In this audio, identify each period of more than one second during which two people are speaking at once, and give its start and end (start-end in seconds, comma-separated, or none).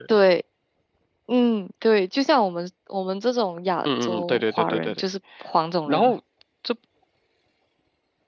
3.9-5.0